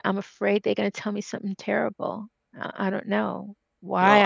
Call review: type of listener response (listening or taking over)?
taking over